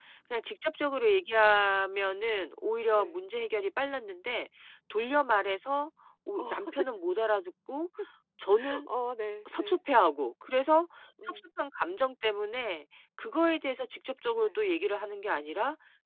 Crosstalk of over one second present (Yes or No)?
No